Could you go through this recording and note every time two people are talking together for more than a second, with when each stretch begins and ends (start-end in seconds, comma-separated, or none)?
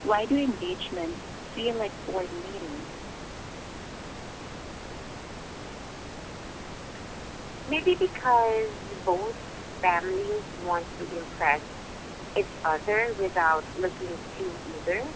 none